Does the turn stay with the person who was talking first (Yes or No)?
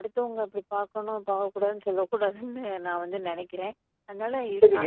No